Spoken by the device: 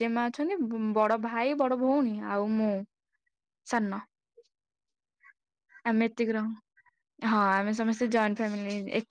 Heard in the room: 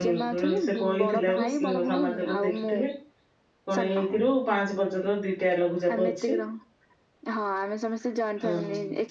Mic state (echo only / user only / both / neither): both